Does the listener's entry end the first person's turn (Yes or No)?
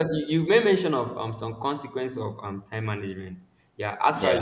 No